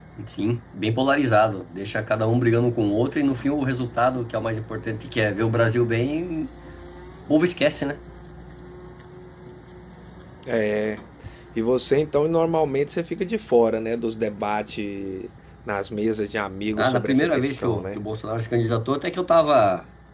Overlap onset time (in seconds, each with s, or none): 16.8 s